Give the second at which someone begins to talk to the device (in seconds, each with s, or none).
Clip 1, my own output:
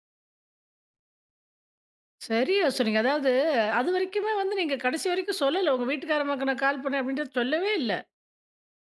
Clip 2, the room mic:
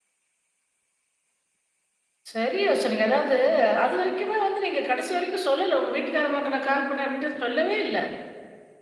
none